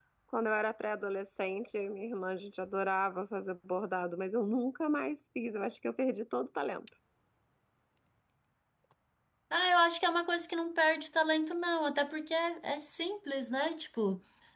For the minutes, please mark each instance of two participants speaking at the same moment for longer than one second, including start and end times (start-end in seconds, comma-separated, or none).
none